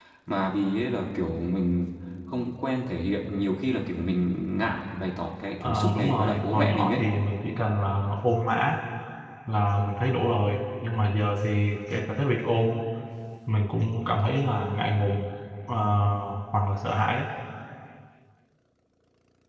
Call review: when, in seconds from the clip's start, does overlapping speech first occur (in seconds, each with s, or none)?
5.6 s